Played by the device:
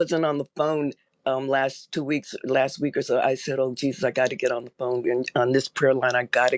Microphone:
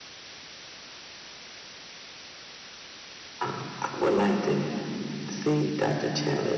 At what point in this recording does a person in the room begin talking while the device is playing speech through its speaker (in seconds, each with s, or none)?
3.4 s